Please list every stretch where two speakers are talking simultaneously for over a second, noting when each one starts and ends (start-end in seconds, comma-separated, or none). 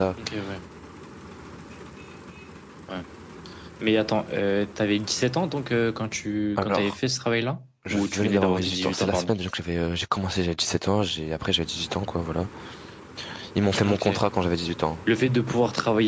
7.8-9.3